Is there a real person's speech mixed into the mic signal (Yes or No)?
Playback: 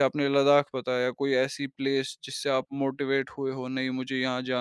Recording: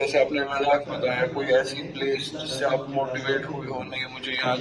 Yes